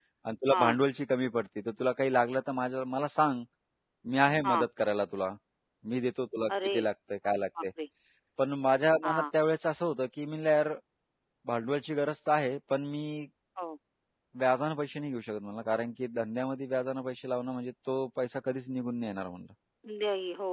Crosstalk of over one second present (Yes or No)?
No